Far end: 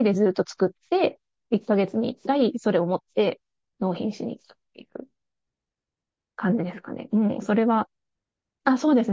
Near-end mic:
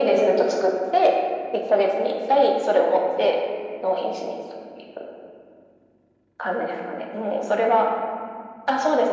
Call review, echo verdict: present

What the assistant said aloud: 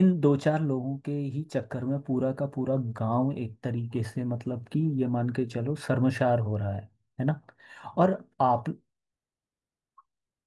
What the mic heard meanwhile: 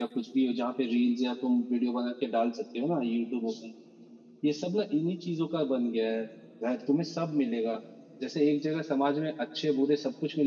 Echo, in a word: none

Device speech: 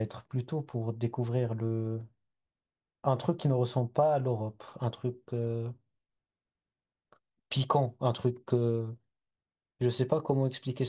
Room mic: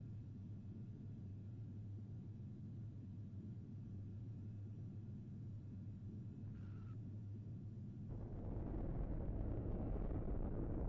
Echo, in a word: none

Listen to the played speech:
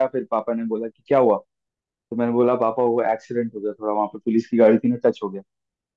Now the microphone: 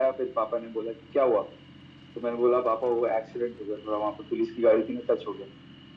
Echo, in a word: present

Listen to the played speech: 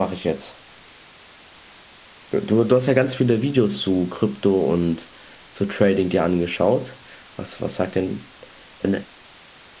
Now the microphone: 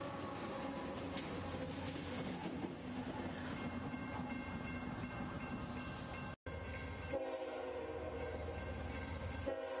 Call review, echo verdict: none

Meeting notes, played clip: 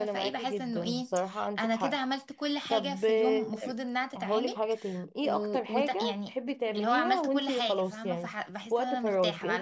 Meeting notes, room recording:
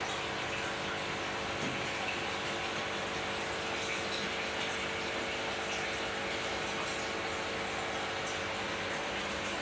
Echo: none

